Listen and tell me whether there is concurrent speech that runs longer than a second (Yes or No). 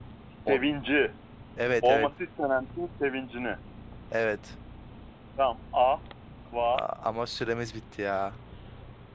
No